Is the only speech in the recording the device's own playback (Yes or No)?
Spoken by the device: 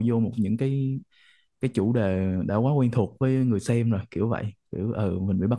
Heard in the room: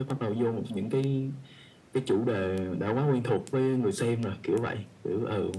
Yes